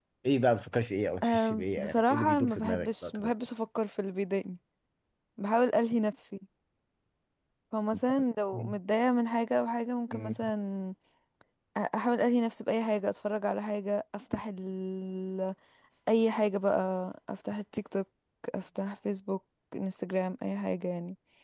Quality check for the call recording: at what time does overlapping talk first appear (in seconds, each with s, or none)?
1.2 s